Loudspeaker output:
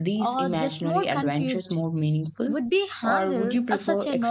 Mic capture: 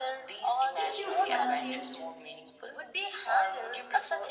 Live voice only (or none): If you ha- leave